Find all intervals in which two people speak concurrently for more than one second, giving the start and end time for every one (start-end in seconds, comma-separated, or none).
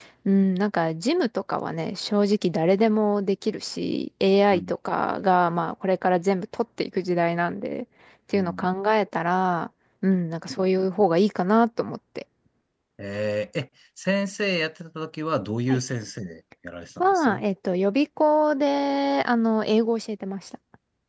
none